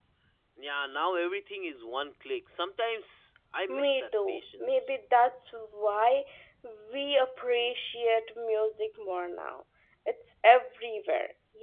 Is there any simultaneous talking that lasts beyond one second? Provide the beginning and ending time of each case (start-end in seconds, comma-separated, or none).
3.7-4.9